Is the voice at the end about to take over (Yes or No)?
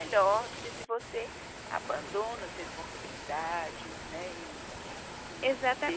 Yes